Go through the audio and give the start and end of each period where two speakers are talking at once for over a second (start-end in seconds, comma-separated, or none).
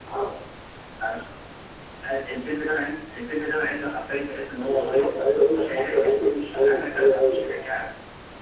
4.6-7.7